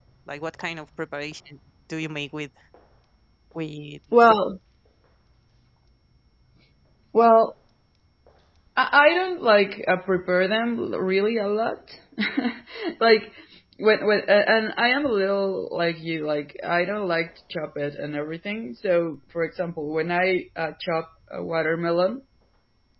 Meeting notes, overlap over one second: none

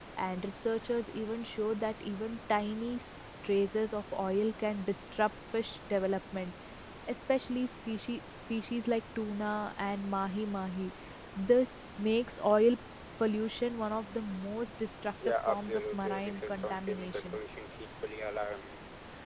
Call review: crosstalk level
present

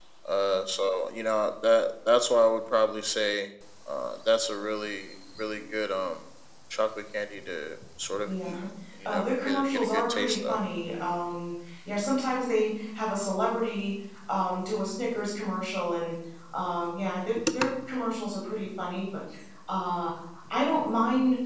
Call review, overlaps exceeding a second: present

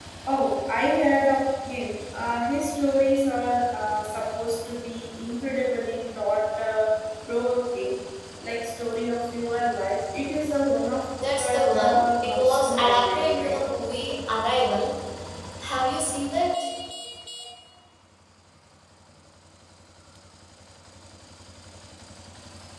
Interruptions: present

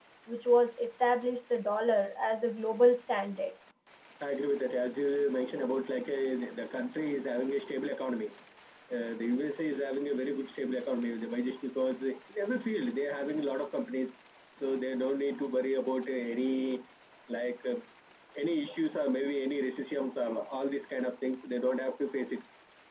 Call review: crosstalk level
none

